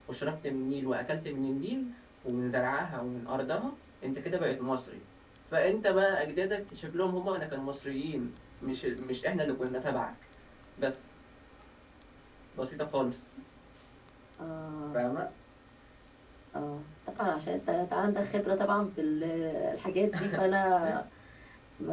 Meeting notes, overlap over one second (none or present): none